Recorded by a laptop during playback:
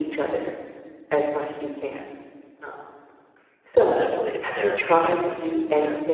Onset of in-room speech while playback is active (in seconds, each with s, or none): 3.9 s